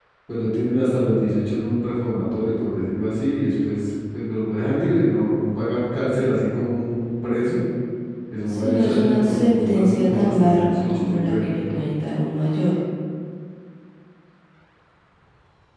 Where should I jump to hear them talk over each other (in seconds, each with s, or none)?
8.5 s